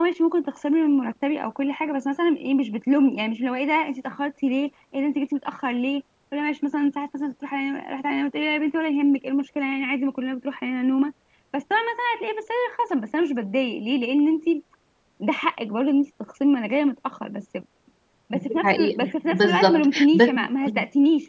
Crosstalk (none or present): present